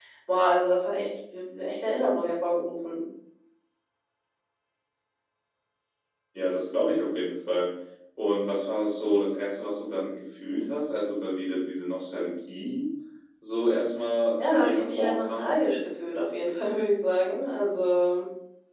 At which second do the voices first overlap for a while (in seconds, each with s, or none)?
14.3 s